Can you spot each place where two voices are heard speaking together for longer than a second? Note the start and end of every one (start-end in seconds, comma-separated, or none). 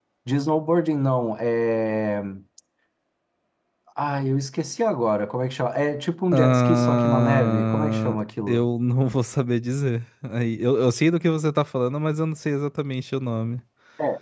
6.3-8.7